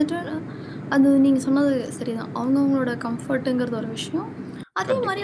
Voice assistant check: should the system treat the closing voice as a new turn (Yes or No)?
No